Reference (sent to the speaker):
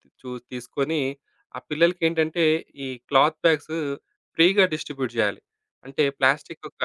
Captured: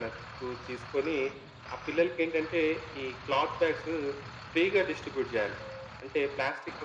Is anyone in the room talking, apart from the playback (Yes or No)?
No